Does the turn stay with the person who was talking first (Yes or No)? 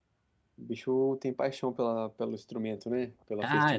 No